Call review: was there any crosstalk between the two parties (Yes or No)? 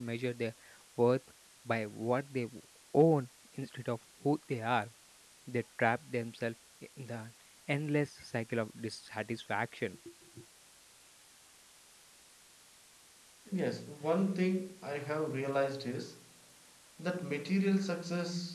No